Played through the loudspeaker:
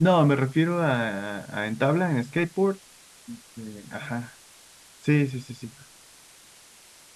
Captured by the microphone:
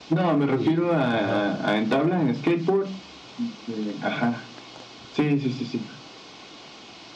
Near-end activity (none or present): present